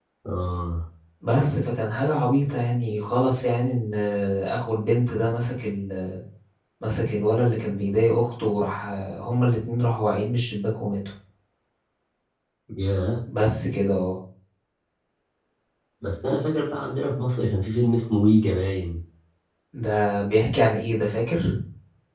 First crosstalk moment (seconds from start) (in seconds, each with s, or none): none